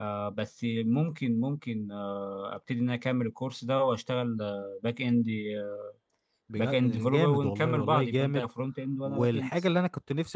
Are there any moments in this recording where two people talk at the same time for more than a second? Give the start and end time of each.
6.6-8.4

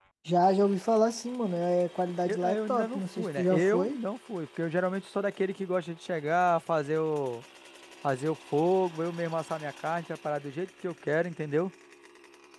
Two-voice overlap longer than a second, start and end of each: 2.2-4.0

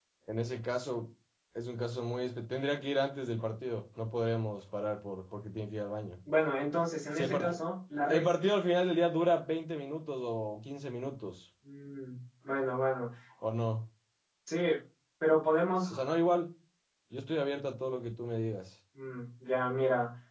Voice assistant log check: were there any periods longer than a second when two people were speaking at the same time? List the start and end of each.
none

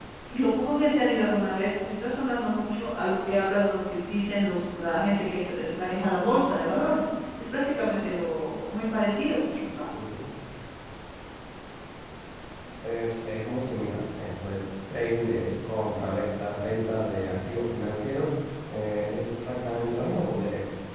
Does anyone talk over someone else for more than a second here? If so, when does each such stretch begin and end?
none

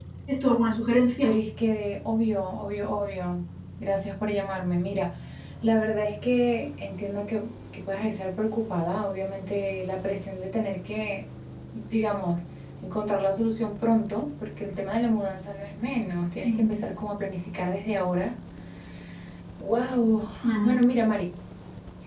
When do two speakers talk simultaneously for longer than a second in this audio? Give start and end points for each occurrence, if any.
none

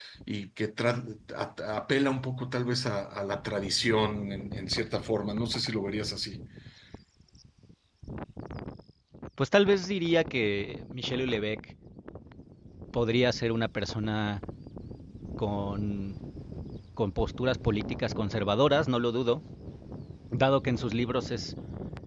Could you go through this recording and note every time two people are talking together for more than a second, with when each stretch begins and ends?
none

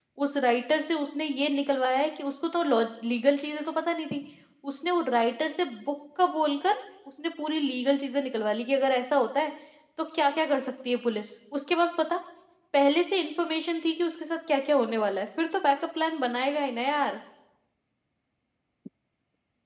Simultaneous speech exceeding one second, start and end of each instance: none

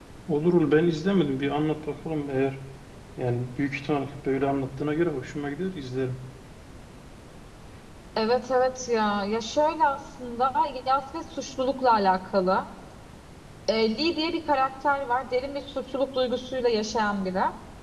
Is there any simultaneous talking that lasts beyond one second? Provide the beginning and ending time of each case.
none

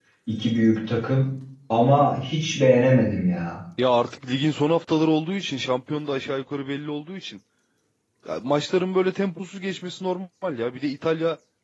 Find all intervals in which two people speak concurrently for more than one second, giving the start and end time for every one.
none

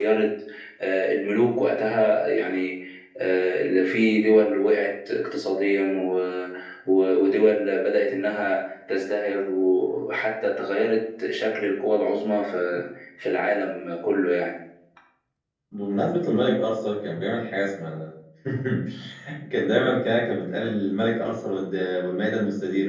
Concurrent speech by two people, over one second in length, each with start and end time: none

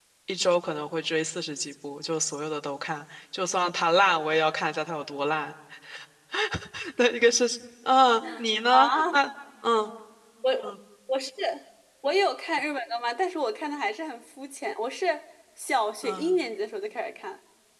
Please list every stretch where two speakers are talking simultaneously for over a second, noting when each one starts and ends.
none

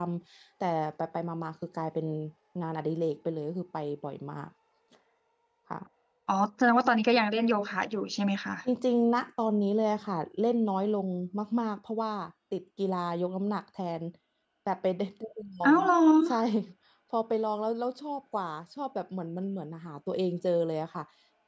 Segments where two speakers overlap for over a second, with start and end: none

